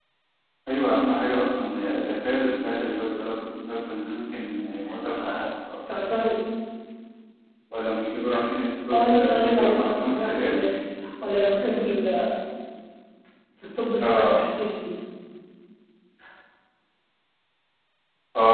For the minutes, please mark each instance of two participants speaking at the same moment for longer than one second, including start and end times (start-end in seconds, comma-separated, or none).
8.9-10.7